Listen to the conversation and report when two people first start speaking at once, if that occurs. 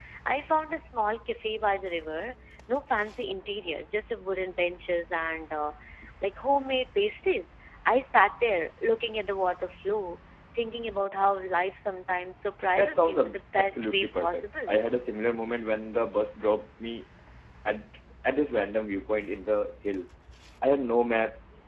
12.7 s

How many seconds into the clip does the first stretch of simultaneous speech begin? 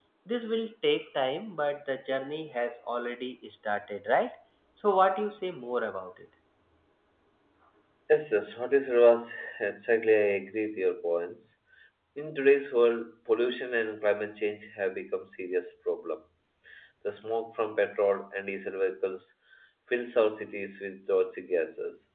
none

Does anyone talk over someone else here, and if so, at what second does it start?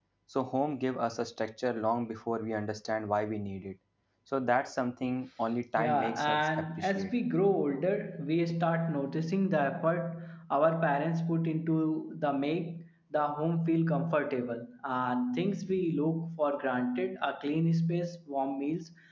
5.8 s

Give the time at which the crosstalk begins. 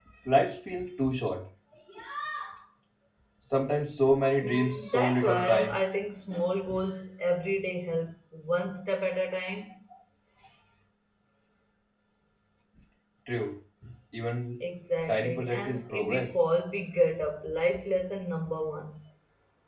4.4 s

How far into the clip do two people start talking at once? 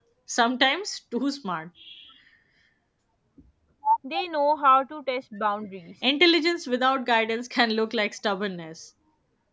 none

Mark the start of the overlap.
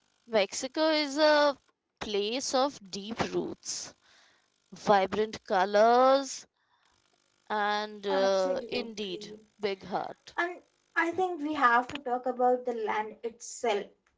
8.1 s

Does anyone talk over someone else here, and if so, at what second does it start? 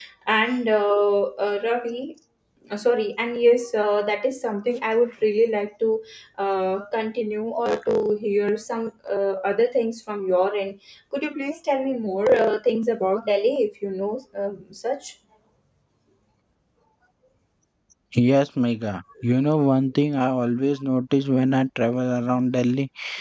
none

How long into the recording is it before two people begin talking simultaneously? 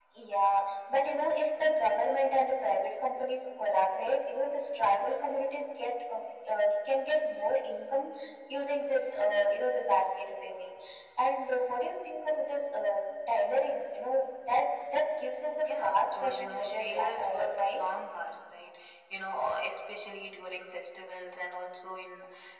15.7 s

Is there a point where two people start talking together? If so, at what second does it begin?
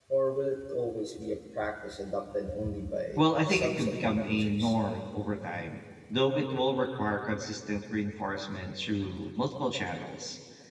3.2 s

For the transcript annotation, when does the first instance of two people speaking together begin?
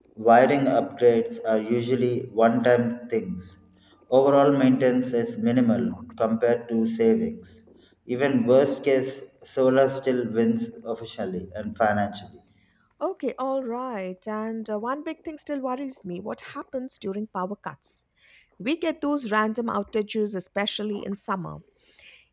none

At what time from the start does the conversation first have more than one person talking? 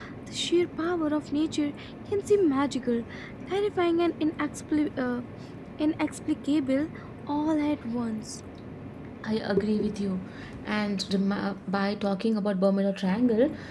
none

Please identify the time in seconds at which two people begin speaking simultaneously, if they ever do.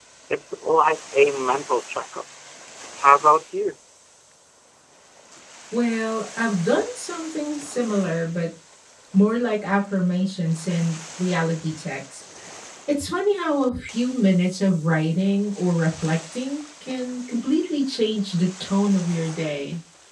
none

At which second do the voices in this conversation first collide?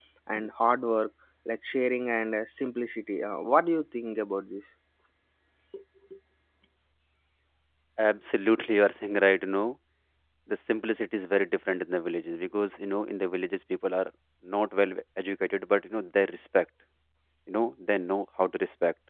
none

